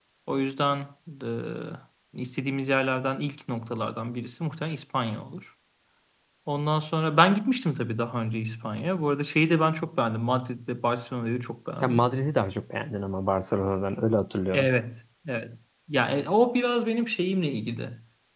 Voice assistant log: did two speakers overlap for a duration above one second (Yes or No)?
No